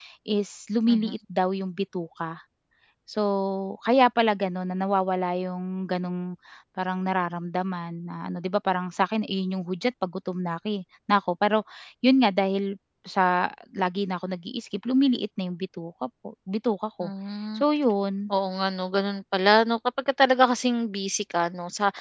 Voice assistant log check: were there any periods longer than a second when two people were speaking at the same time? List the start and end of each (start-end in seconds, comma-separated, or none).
none